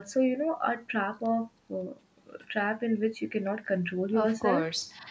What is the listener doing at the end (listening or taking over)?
taking over